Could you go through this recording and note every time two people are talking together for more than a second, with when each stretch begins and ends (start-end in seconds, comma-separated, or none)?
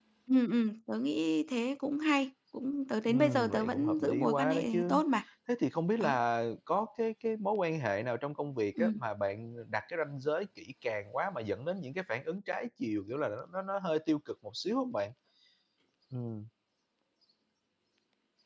3.1-5.0